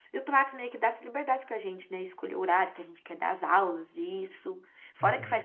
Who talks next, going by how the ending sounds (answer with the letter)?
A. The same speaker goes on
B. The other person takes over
A